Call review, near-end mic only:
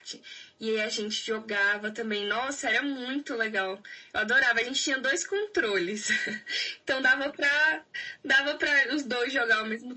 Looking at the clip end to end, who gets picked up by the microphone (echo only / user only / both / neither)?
echo only